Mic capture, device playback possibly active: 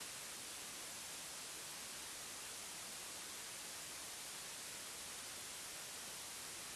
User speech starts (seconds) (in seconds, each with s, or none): none